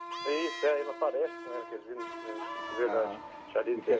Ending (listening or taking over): taking over